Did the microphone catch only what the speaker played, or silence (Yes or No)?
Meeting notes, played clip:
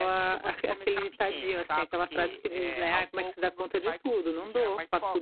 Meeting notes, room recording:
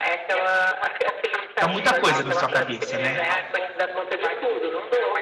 No